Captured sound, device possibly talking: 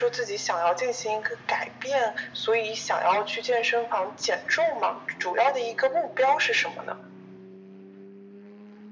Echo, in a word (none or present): present